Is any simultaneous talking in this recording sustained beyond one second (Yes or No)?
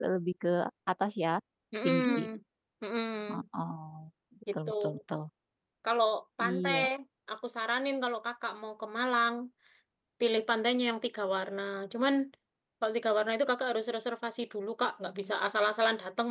No